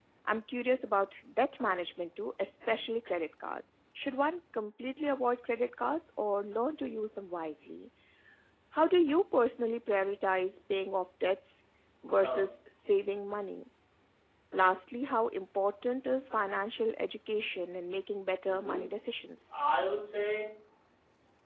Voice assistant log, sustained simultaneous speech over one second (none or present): none